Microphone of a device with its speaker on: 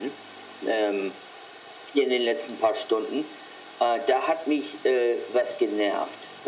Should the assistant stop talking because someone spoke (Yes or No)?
No